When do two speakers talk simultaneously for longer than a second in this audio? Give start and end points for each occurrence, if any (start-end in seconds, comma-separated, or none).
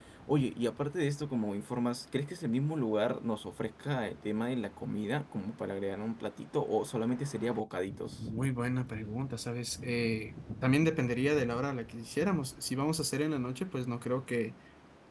none